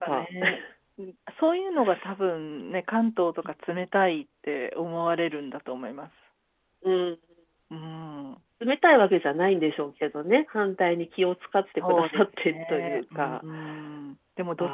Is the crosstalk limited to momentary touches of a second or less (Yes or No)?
No